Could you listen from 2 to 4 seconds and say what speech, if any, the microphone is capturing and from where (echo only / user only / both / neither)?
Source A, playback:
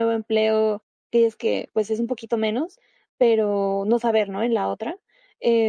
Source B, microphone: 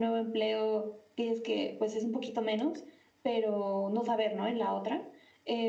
echo only